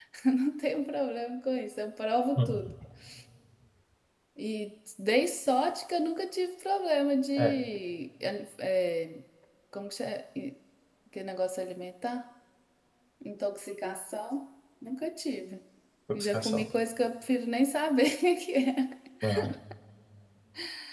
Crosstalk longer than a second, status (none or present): none